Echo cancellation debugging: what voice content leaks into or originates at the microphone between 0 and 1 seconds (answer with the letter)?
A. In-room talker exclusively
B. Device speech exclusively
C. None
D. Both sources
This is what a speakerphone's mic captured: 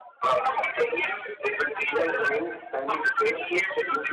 B